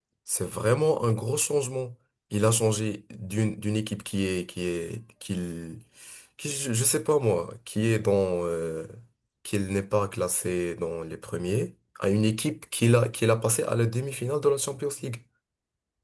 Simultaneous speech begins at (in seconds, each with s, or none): none